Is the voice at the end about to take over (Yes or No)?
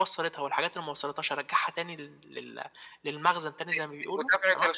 Yes